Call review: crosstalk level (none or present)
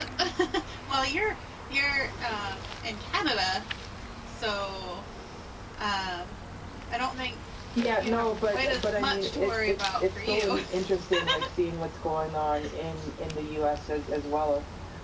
present